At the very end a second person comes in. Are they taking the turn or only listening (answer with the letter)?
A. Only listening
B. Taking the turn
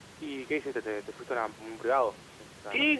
B